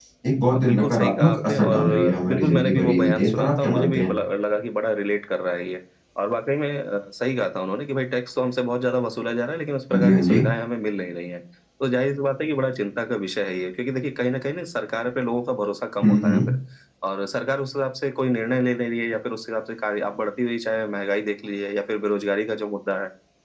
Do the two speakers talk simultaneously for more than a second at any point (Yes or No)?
Yes